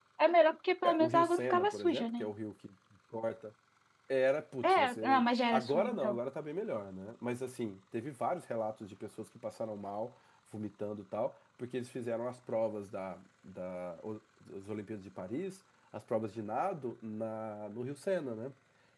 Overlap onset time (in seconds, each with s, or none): 0.8 s